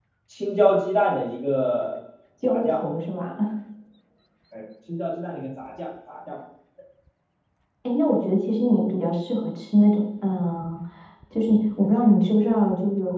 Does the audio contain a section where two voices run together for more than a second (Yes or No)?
No